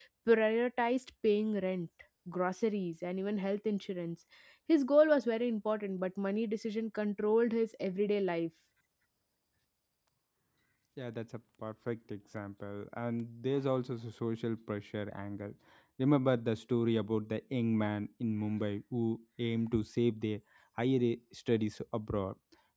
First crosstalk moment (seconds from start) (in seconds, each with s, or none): none